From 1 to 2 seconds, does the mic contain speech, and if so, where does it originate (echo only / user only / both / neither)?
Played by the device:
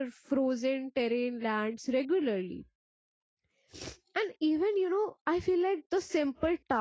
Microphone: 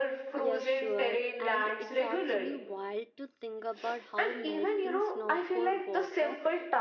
both